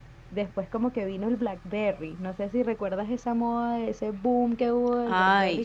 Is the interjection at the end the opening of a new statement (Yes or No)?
Yes